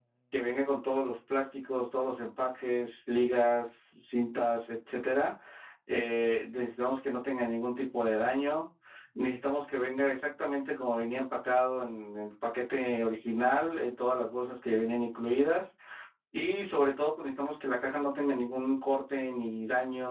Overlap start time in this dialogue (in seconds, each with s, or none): none